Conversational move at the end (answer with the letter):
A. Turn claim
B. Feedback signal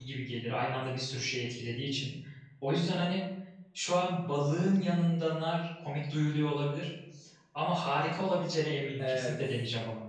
A